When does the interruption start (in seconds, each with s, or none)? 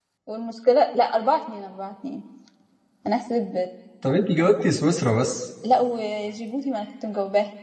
none